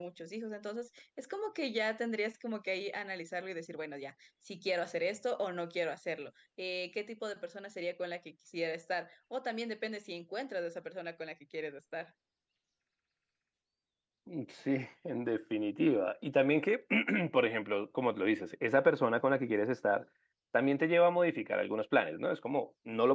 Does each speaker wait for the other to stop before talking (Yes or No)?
Yes